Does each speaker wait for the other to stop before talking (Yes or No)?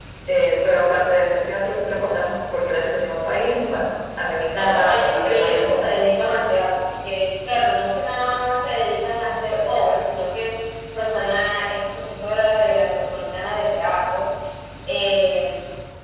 No